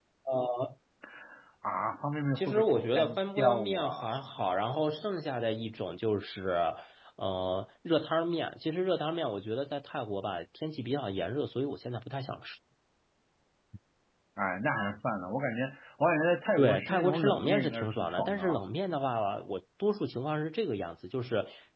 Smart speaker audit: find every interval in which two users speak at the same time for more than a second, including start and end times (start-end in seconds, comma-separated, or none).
2.4-4.2, 16.6-18.6